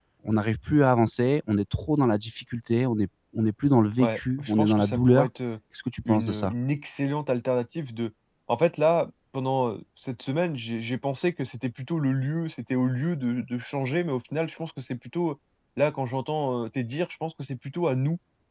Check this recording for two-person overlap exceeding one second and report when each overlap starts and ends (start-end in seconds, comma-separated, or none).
4.0-5.3